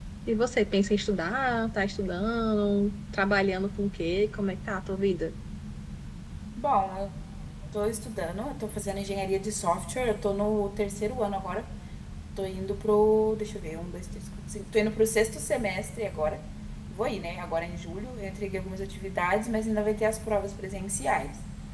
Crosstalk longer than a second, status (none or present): none